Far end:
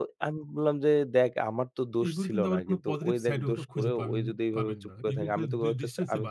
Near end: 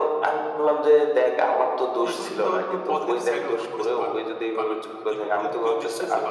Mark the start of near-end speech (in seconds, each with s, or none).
none